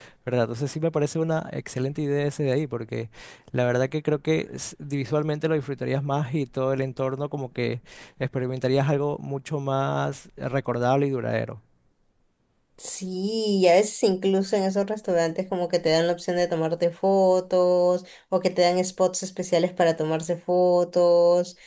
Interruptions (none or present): none